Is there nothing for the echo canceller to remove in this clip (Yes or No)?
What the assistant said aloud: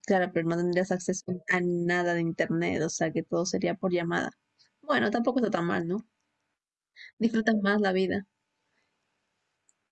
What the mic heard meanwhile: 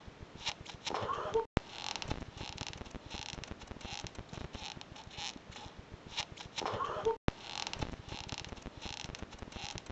Yes